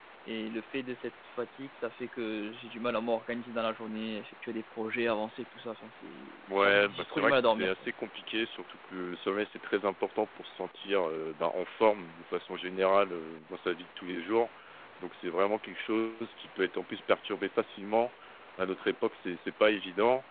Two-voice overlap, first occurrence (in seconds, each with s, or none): 6.5 s